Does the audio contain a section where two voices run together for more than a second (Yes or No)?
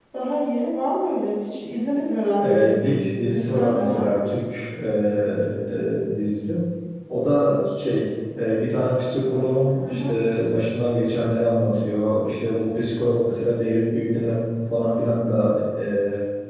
Yes